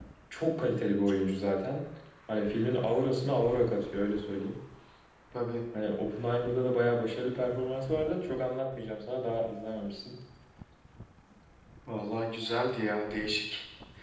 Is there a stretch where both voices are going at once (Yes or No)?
No